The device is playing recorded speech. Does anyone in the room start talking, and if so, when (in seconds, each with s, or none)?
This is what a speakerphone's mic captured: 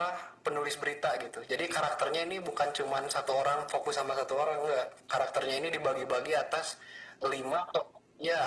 none